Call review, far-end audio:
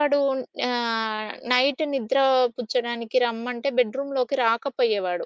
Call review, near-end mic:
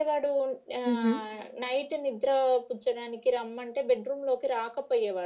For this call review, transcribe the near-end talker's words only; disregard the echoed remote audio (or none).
హుహు.